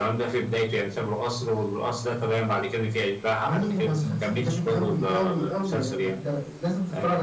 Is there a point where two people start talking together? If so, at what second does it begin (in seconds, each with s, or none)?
3.4 s